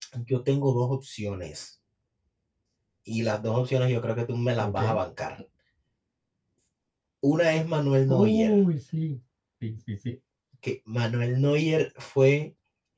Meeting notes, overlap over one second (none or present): none